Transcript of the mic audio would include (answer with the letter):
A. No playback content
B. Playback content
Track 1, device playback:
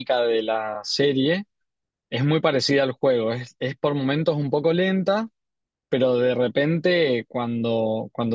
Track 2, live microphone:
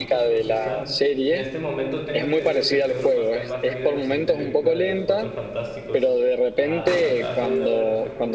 B